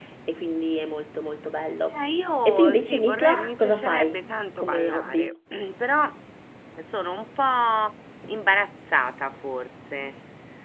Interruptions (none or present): present